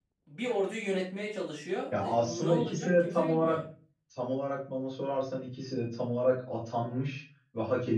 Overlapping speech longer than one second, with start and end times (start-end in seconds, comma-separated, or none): 1.9-3.6